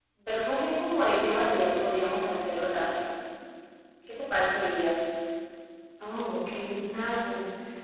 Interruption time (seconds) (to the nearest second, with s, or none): none